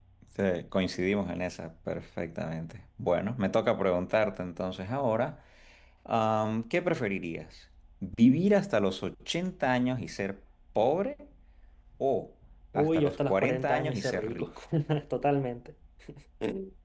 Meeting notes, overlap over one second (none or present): present